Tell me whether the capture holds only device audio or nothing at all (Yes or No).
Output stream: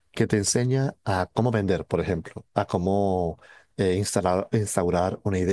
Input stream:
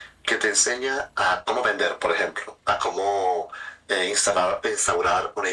Yes